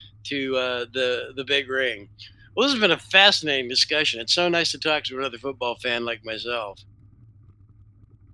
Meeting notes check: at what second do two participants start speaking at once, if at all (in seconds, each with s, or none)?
none